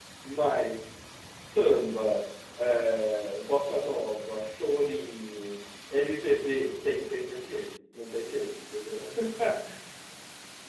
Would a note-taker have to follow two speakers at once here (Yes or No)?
No